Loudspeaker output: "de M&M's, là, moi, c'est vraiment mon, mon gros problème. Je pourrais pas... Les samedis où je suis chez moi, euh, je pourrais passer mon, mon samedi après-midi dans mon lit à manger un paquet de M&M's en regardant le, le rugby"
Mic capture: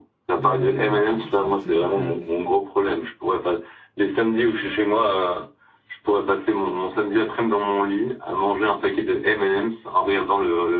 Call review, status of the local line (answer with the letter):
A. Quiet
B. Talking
B